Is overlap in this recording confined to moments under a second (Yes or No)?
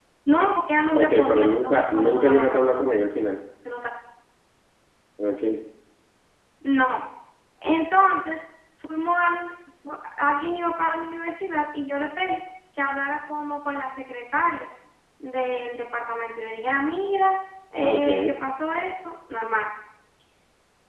No